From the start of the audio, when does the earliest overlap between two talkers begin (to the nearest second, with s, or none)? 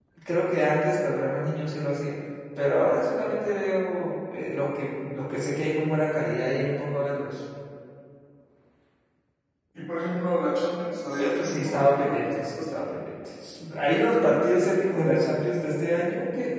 11 s